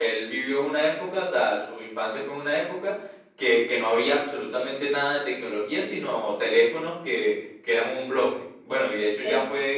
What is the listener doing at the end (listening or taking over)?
listening